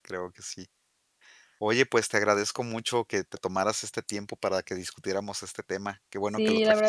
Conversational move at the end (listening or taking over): taking over